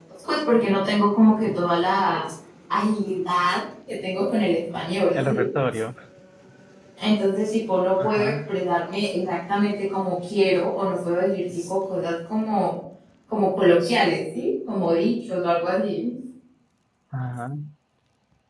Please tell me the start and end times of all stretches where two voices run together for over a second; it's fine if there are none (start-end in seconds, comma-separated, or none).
none